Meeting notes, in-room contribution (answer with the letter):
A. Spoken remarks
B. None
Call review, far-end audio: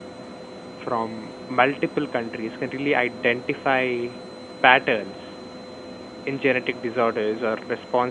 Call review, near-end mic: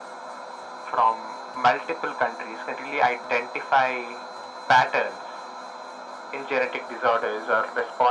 B